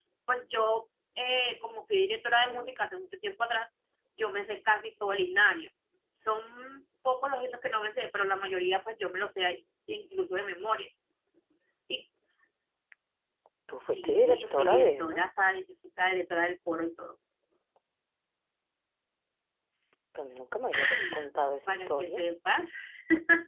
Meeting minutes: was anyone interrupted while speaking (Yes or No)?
Yes